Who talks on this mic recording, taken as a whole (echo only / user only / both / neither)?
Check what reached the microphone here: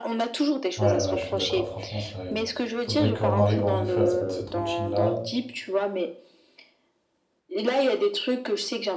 both